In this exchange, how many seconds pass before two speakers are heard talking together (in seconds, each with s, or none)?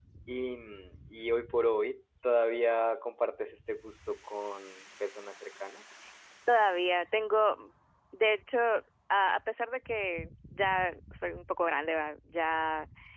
none